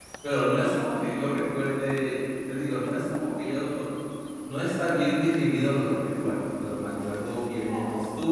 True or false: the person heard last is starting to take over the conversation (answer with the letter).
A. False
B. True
A